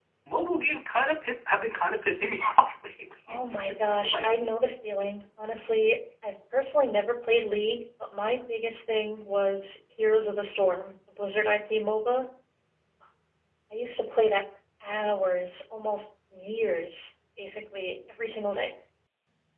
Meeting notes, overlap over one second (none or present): present